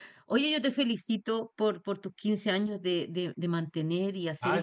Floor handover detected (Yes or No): Yes